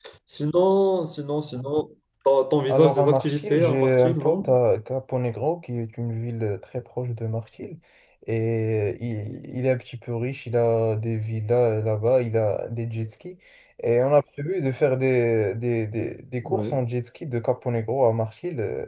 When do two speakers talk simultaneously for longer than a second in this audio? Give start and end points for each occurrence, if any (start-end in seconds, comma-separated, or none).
2.7-4.6